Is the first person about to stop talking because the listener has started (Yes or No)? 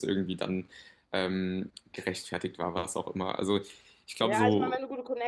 Yes